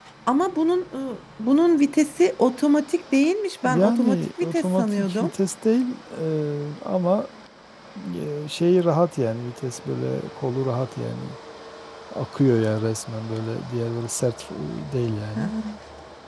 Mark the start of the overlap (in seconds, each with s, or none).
3.6 s